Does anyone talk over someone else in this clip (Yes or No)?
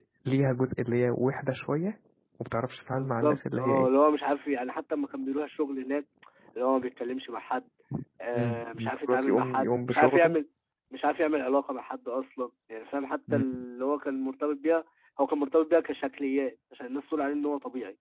Yes